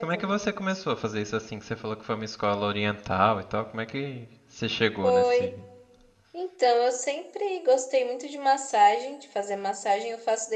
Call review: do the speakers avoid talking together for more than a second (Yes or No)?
Yes